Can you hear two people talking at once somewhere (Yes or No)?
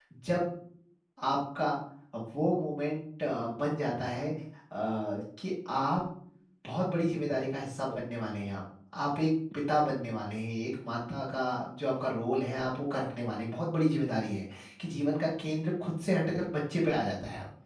No